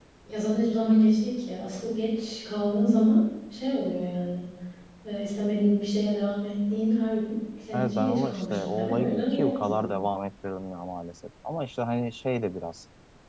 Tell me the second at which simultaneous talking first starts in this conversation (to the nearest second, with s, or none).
8 s